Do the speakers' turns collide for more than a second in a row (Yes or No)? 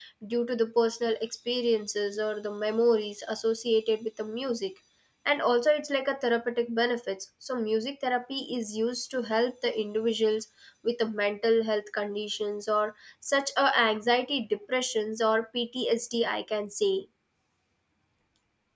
No